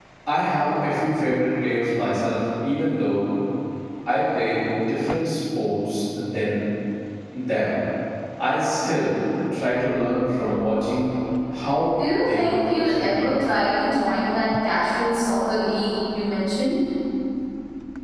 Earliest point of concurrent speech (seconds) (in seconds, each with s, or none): 12.1 s